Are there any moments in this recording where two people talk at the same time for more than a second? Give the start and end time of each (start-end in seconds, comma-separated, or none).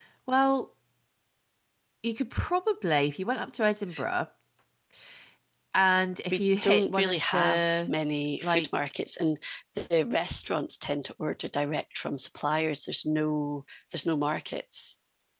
6.3-7.9